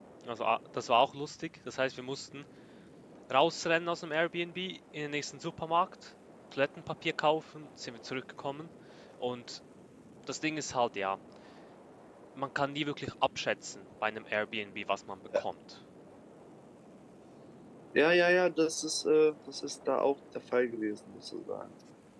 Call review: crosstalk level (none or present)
none